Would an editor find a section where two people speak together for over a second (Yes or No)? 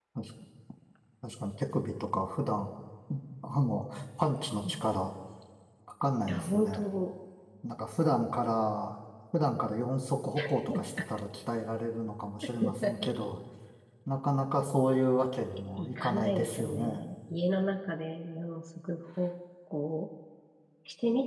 Yes